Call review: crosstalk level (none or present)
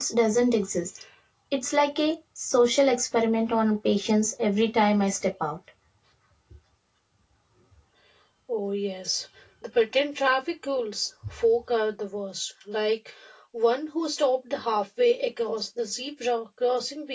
none